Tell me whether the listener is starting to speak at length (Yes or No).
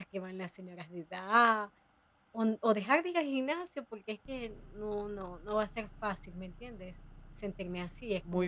Yes